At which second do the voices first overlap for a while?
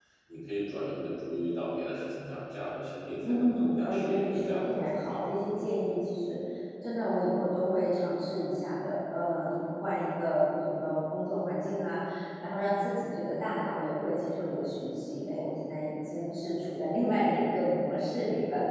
3.2 s

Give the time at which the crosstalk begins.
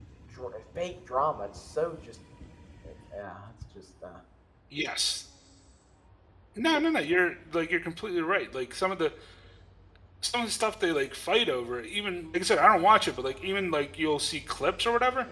none

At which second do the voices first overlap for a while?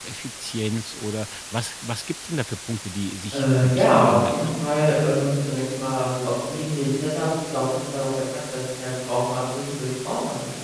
3.3 s

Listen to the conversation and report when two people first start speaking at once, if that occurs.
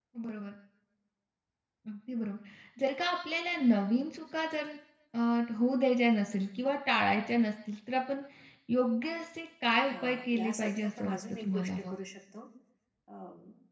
9.9 s

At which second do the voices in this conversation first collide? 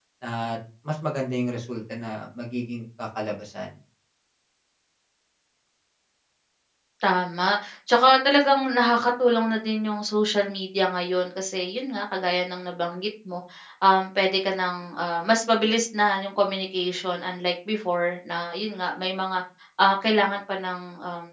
none

